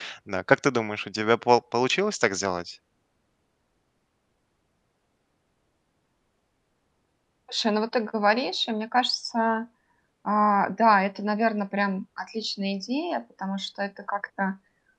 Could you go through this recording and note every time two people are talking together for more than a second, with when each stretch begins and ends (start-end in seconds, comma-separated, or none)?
none